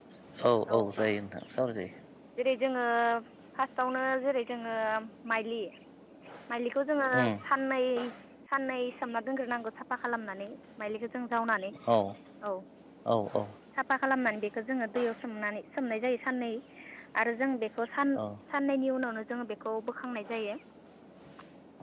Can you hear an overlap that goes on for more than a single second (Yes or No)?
No